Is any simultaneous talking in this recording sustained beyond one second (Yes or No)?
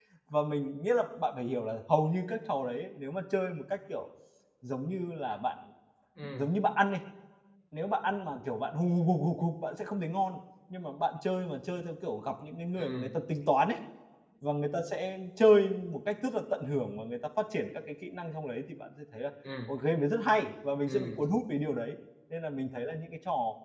No